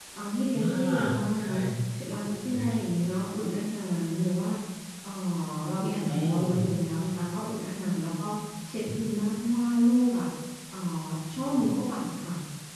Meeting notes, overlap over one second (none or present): none